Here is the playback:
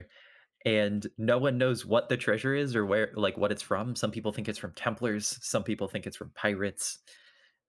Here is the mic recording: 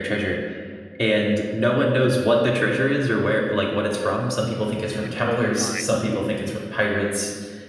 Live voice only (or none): it'd blow your mind.